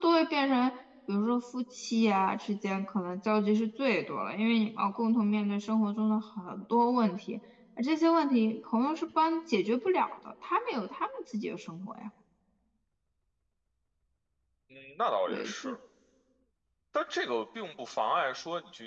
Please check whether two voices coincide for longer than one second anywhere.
No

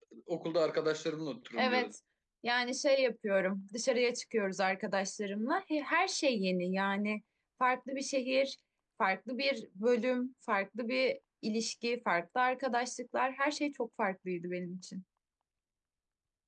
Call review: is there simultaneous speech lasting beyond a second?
No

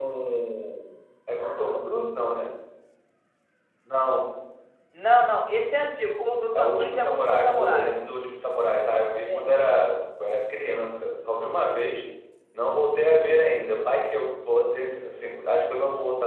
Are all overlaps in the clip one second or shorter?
No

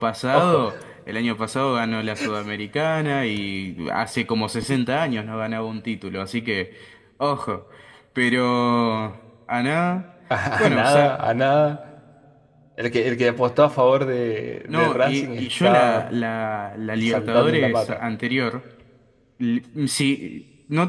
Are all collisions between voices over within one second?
No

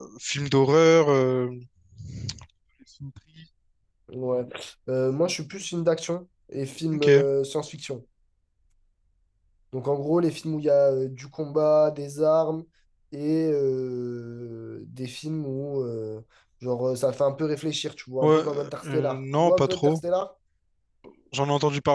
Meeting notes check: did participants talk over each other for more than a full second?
Yes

